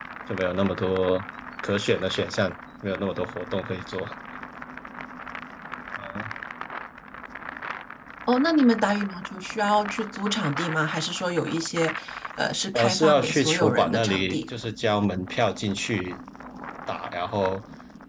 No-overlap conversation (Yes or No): No